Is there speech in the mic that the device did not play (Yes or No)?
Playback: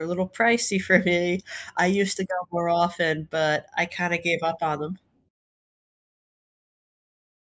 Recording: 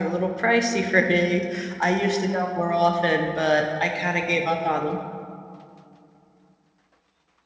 No